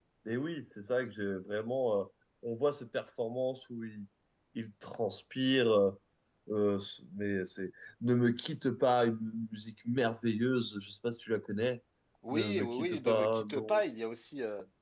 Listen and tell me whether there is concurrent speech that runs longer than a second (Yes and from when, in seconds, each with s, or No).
Yes, from 12.3 s